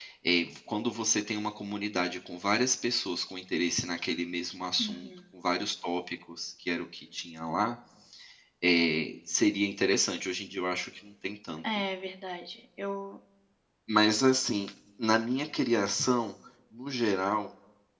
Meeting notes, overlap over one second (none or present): none